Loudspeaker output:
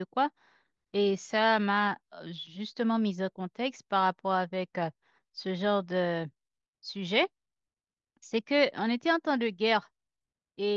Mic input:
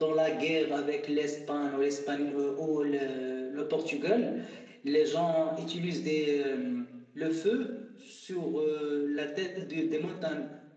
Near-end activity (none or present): present